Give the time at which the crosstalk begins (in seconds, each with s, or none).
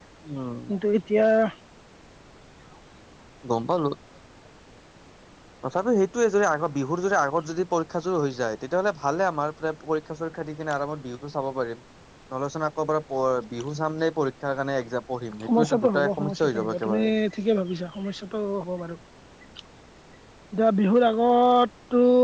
15.4 s